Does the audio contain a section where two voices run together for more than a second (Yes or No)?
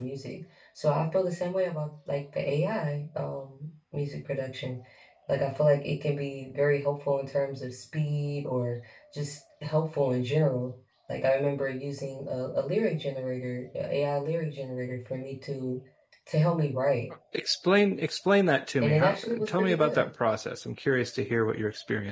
Yes